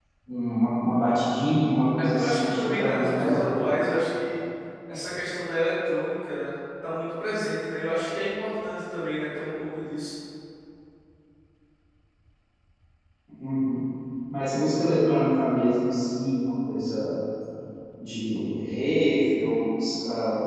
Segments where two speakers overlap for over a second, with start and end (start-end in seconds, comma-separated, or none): 2.0-3.5